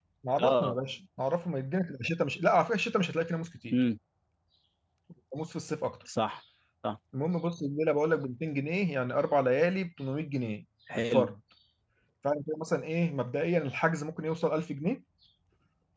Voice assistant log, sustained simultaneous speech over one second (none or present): none